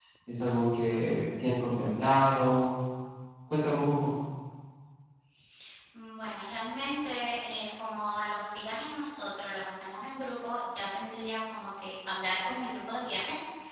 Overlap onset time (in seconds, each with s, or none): none